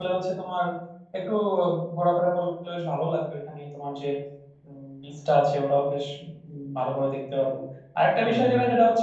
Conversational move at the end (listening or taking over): listening